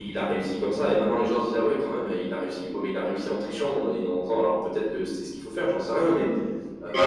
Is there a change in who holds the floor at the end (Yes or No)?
No